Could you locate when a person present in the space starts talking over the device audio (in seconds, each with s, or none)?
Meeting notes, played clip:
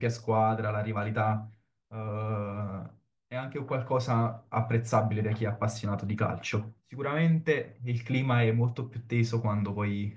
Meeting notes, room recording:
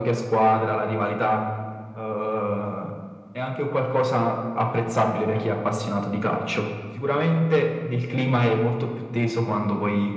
none